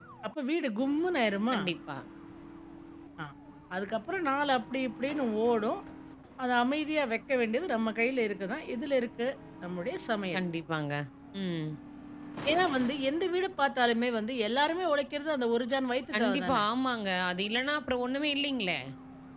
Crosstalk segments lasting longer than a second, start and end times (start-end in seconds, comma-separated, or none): none